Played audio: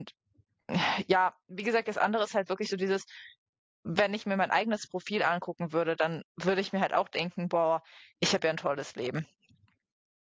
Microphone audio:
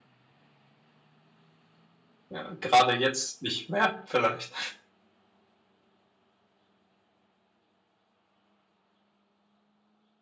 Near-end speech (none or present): present